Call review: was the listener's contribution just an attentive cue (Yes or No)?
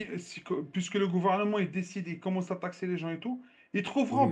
Yes